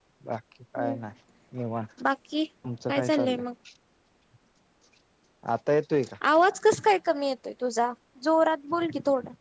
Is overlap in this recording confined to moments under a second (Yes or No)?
Yes